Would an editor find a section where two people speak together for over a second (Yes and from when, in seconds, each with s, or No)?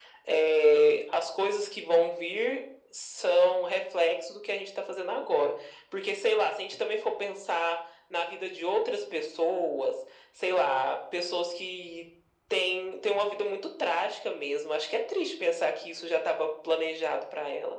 No